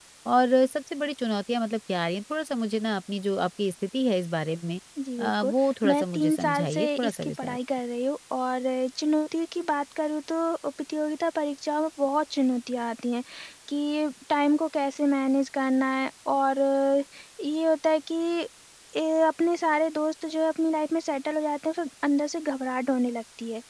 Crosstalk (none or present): present